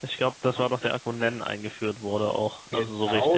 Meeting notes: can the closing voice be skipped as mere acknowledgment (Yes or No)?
No